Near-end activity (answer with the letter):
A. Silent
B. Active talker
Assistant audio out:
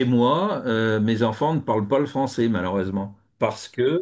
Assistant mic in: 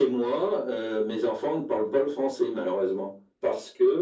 A